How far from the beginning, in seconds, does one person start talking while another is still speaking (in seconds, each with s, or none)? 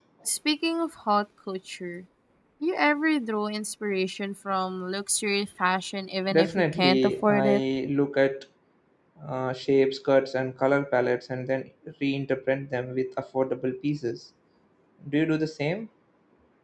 6.3 s